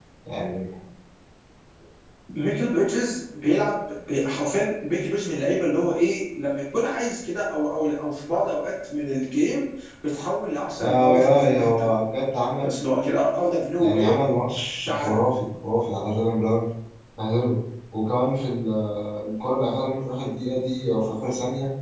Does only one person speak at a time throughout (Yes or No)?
No